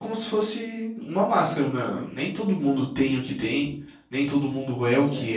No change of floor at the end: Yes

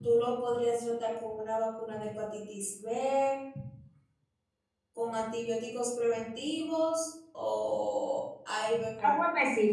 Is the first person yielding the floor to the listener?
Yes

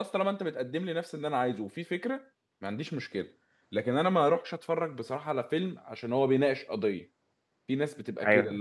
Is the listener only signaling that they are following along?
Yes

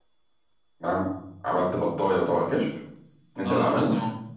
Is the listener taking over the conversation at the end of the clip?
Yes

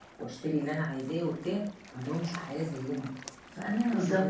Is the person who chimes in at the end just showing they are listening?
Yes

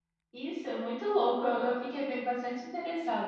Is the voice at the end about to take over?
Yes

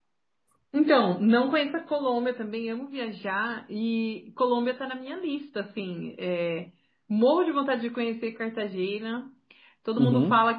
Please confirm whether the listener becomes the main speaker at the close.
No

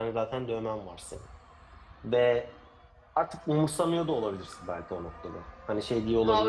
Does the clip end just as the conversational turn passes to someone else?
Yes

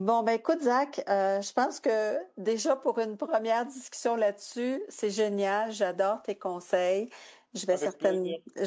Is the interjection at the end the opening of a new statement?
No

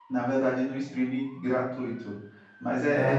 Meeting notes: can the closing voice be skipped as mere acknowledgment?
Yes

